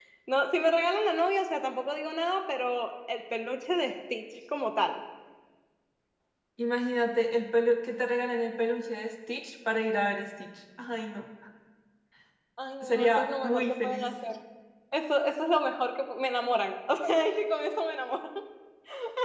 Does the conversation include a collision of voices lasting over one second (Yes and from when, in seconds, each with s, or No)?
Yes, from 12.8 s